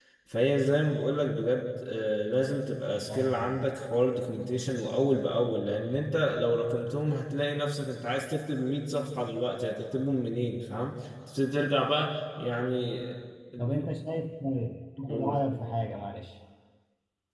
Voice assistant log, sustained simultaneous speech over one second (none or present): none